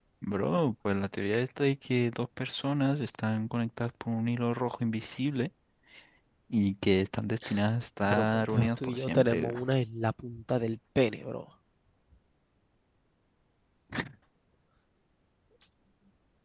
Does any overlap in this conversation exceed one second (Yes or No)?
Yes